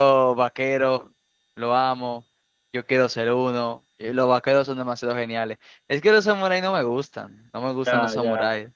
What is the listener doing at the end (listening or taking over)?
taking over